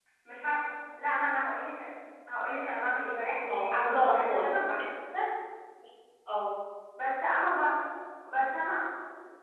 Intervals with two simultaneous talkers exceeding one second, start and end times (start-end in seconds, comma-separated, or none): 3.5-4.8